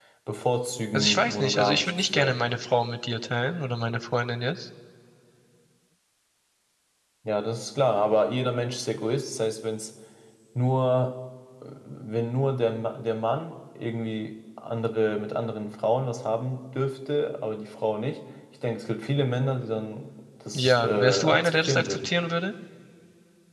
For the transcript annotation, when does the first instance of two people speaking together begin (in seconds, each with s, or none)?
0.9 s